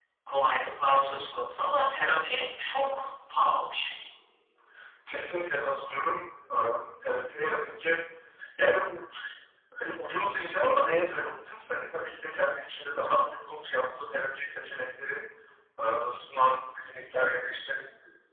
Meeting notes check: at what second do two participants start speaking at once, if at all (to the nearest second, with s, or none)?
none